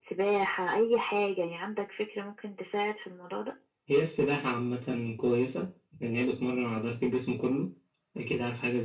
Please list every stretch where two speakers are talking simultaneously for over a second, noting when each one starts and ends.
none

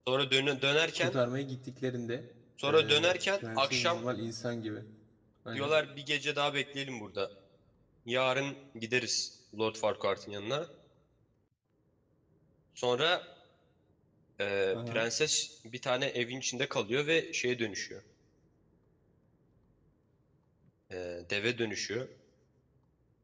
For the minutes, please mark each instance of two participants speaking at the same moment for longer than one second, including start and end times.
2.7-4.0

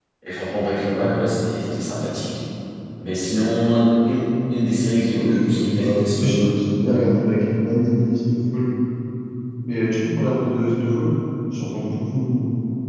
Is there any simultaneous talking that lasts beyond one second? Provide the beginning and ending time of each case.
5.1-6.5

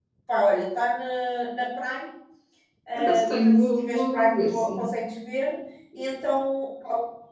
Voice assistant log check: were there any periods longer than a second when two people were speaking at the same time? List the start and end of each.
3.0-4.9

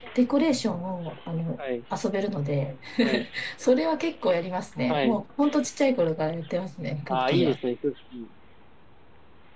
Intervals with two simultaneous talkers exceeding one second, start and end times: none

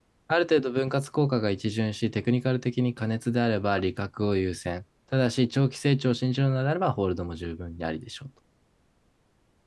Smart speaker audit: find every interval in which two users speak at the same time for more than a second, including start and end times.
none

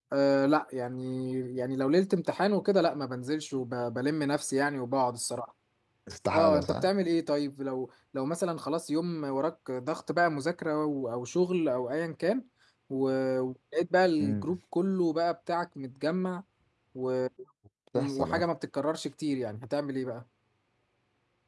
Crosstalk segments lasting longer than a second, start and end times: none

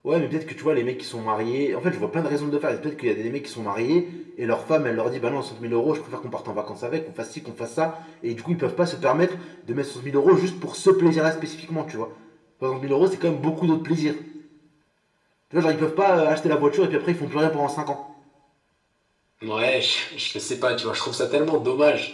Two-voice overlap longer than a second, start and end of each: none

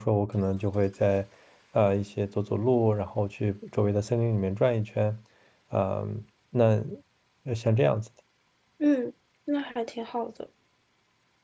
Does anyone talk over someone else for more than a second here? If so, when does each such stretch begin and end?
none

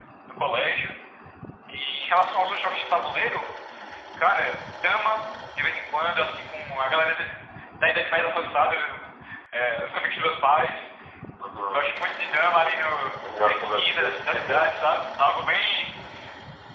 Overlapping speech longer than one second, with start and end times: 13.4-14.7

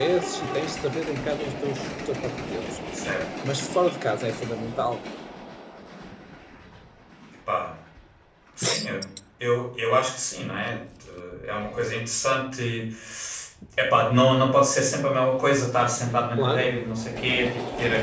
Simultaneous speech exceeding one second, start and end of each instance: none

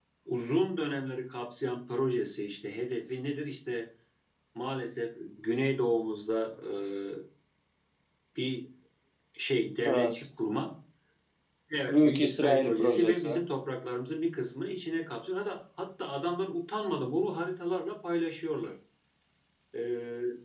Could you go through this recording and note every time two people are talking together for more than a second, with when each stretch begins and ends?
11.9-13.4

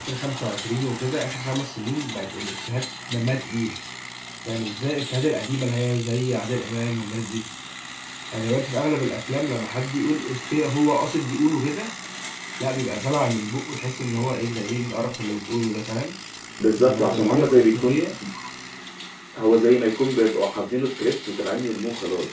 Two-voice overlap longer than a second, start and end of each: 16.7-18.0

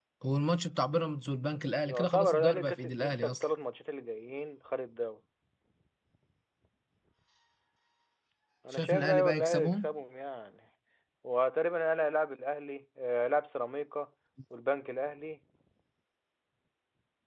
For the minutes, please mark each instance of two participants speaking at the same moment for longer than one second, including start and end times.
1.8-3.4, 8.7-9.9

